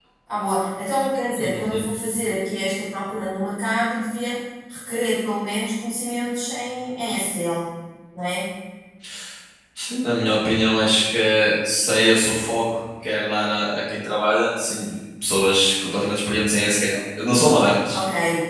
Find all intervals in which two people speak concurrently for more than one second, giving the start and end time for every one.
none

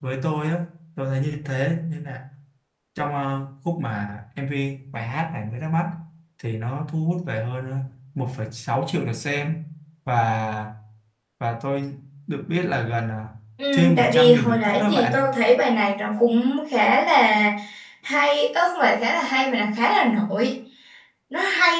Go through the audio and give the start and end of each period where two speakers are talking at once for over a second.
13.7-15.2

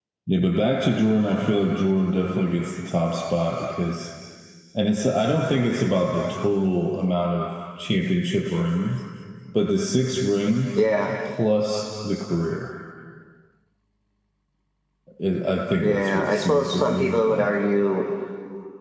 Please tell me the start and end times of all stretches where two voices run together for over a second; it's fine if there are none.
15.8-17.5

